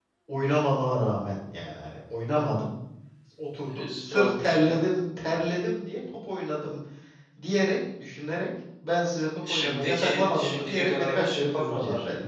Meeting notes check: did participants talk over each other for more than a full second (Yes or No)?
Yes